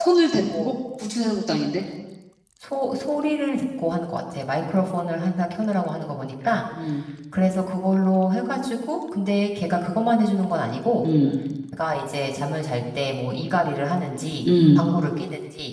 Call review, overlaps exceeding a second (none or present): none